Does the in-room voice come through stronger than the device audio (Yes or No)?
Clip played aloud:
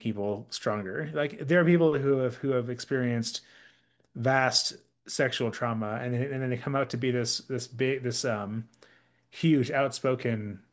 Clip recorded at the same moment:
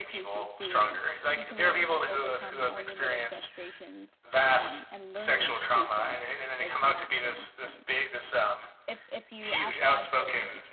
No